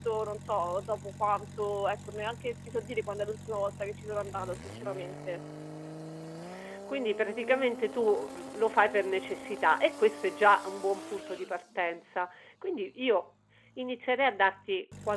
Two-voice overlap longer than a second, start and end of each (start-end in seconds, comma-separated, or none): none